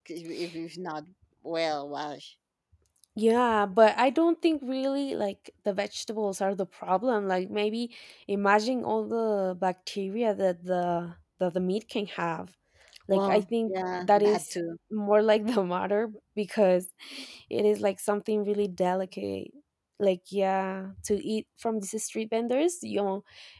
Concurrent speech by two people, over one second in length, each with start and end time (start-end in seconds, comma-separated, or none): 13.1-14.5